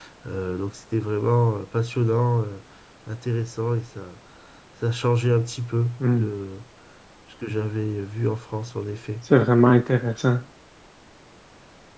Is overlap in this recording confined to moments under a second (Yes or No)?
Yes